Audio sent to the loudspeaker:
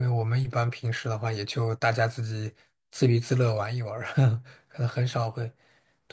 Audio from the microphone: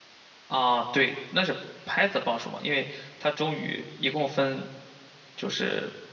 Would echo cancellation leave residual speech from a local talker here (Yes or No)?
Yes